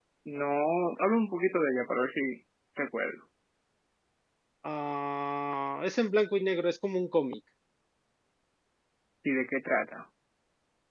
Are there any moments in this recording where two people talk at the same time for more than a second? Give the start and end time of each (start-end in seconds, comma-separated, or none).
none